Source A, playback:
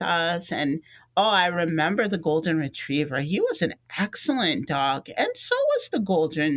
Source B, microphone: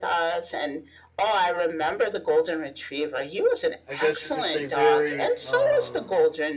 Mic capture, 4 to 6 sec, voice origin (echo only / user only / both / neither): both